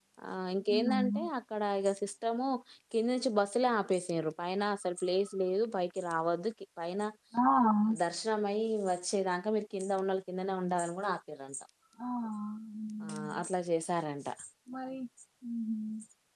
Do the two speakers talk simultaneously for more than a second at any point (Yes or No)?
No